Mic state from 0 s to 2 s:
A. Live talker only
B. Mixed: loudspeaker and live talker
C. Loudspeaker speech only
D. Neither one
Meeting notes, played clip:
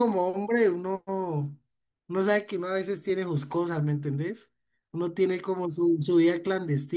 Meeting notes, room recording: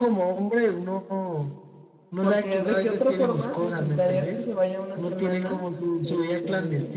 C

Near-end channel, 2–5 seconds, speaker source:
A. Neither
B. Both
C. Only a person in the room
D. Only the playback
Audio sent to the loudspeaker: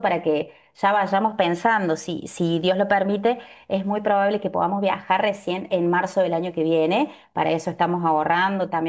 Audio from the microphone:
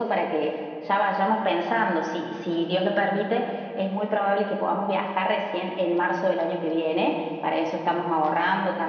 D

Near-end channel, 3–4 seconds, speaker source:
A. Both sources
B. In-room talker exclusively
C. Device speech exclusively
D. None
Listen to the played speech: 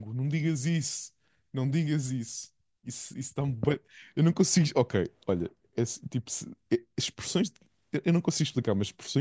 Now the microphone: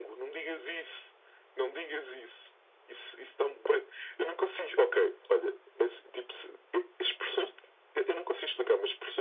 C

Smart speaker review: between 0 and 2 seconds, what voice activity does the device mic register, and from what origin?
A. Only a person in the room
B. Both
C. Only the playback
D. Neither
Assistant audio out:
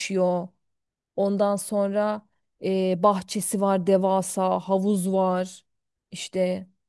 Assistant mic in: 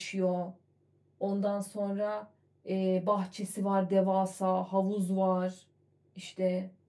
C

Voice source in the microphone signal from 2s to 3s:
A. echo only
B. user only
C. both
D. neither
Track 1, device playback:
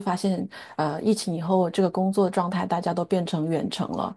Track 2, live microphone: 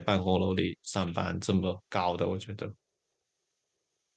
B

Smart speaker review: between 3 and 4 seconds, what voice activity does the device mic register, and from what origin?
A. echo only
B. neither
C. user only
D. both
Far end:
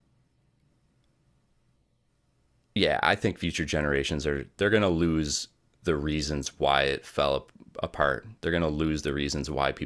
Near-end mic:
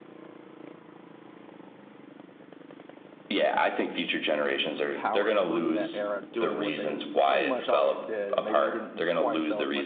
A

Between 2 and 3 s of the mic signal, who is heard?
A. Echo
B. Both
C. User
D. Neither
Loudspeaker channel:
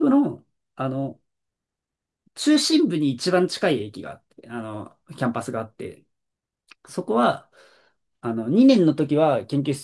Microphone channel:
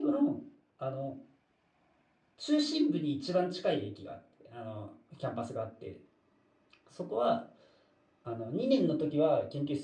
A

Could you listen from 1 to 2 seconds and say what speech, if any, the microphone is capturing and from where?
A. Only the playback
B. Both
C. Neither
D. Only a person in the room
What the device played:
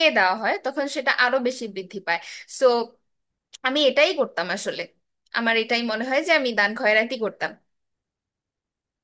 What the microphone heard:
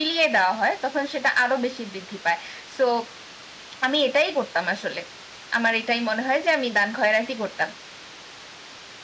A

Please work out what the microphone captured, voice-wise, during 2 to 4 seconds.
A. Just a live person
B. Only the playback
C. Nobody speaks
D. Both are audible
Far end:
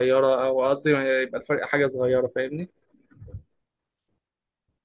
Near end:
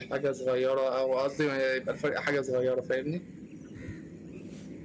B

